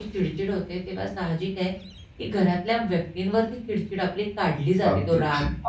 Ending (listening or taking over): taking over